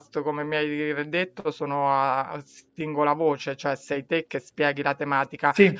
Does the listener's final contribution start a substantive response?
No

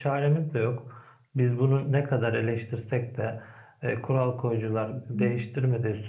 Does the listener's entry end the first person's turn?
No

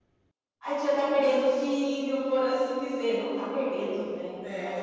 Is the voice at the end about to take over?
Yes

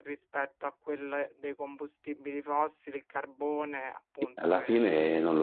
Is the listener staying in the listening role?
No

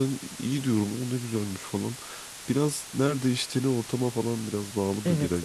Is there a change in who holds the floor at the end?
Yes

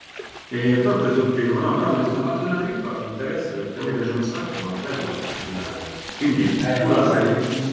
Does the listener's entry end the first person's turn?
Yes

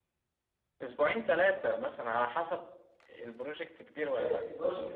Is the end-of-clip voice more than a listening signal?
Yes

